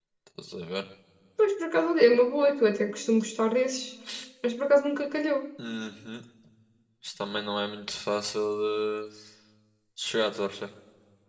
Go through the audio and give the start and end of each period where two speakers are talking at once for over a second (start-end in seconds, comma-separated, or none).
none